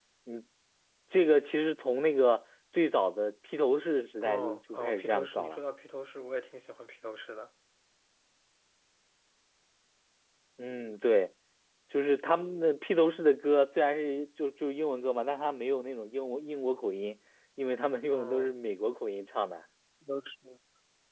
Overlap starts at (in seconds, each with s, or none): 4.2 s